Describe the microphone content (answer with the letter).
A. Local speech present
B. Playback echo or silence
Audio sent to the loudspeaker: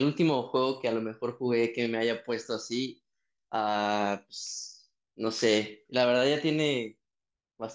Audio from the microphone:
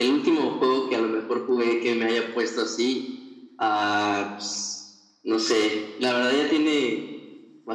B